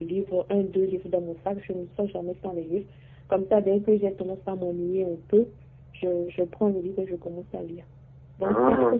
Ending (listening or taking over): listening